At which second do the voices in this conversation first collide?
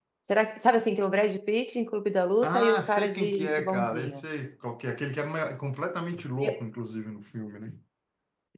2.4 s

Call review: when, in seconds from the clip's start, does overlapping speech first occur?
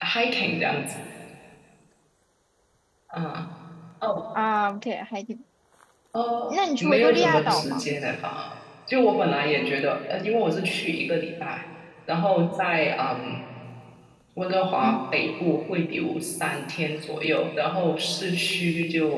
6.5 s

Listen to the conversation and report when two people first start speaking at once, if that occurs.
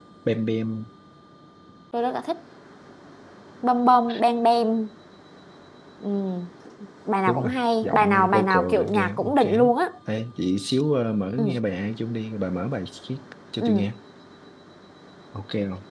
7.3 s

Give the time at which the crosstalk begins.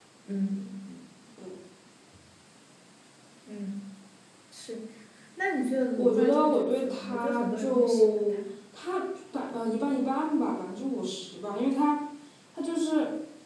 6.0 s

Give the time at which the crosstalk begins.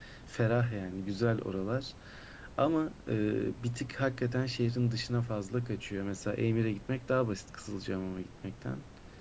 none

